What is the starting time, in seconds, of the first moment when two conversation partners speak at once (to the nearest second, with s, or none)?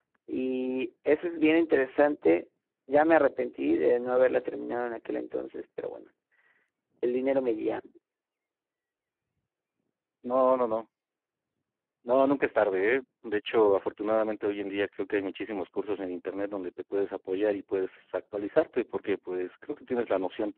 none